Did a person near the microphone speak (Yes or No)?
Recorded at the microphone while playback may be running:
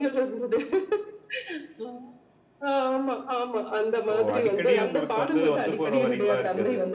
Yes